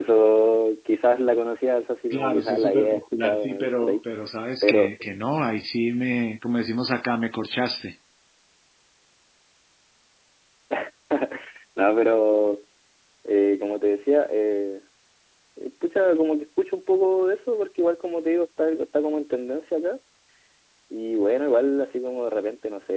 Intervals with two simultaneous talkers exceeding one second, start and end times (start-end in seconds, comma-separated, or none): 2.1-4.0